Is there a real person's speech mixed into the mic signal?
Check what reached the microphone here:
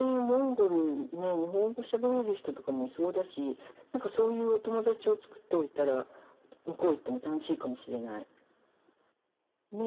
No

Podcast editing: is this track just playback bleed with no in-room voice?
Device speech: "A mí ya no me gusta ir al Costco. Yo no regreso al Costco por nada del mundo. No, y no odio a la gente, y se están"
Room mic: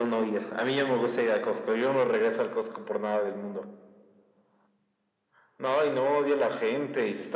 Yes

